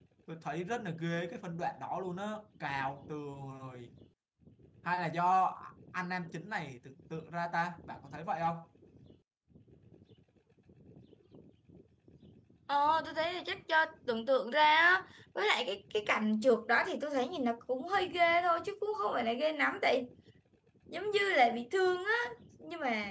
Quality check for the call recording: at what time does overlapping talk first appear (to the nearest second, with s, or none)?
none